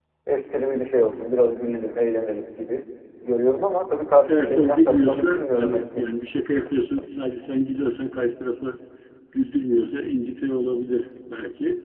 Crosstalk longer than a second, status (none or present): present